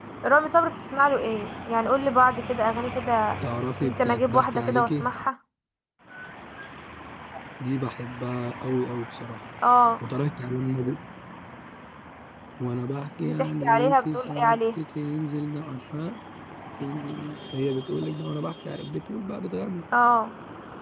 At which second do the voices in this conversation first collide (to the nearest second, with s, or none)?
4 s